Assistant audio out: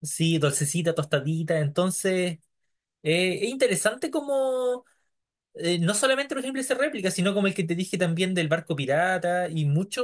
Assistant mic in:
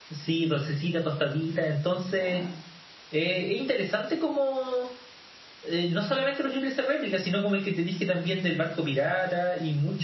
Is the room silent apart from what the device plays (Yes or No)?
No